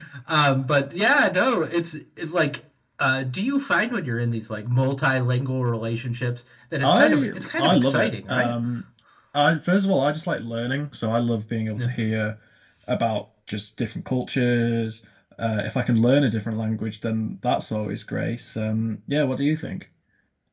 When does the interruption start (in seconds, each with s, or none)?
6.8 s